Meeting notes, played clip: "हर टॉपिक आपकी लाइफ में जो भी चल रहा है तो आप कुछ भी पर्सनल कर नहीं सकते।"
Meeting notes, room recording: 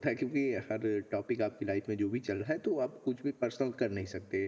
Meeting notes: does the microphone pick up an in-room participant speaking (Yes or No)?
No